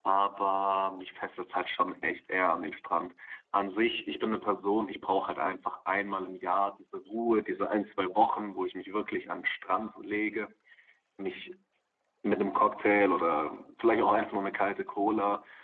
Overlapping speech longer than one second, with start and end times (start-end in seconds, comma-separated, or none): none